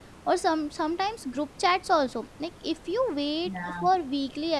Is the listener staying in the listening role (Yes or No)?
Yes